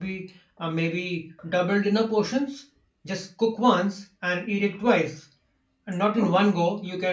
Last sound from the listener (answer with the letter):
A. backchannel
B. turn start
A